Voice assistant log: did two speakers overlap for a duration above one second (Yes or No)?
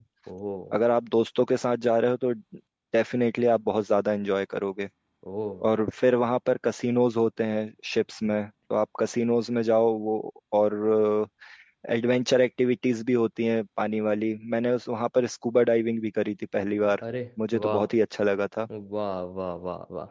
No